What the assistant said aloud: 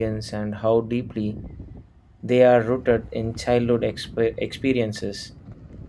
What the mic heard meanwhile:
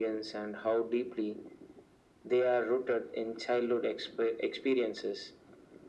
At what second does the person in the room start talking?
none

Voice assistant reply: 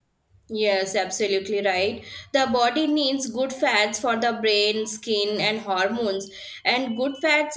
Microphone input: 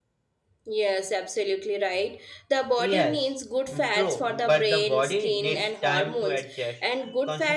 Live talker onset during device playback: 2.8 s

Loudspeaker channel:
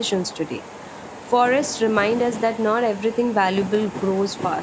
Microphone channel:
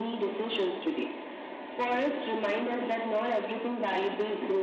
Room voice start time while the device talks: none

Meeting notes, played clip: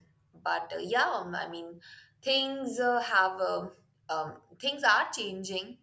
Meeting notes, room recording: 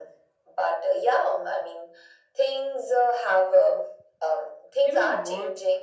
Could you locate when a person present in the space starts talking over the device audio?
4.8 s

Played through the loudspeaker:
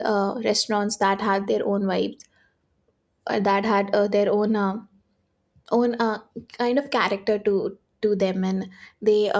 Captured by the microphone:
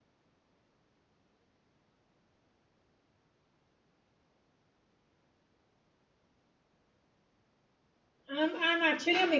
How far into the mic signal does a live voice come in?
8.3 s

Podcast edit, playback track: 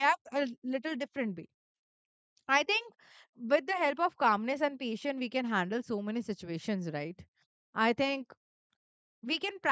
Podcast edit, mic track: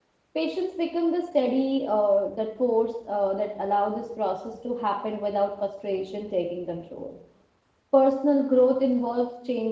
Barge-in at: 0.3 s

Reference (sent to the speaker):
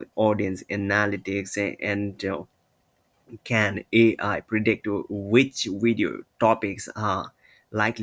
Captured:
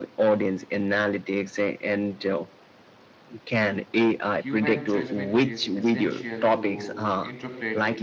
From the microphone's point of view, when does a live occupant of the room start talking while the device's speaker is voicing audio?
4.3 s

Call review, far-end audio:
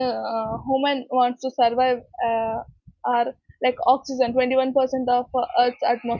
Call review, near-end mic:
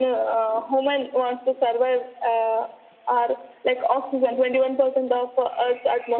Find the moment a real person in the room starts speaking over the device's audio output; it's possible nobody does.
none

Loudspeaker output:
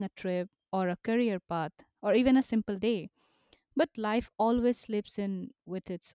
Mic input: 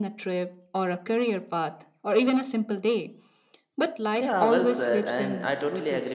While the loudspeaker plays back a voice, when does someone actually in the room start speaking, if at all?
4.1 s

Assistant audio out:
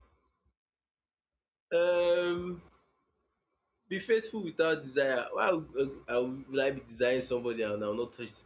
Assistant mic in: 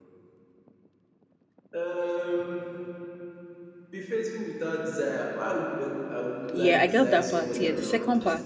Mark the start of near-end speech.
6.5 s

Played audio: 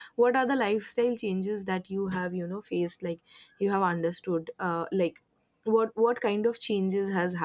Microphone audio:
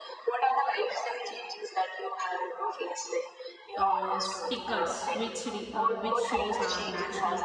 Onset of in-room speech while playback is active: 3.8 s

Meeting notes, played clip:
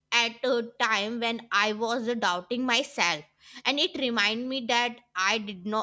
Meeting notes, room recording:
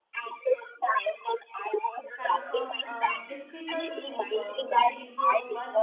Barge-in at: 2.1 s

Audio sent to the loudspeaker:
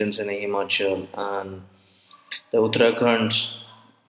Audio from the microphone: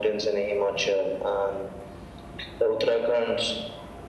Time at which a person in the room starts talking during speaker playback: none

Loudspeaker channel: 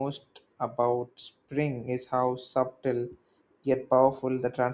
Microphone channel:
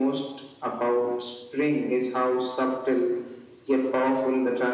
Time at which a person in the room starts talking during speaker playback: none

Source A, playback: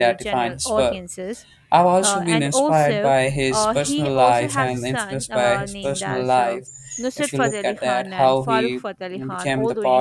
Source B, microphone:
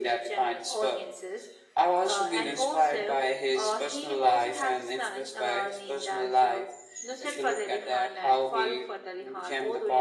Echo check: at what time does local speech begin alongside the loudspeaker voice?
none

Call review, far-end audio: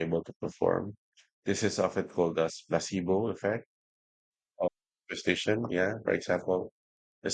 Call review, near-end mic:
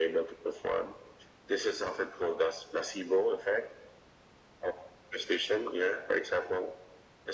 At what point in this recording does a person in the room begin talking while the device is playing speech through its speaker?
none

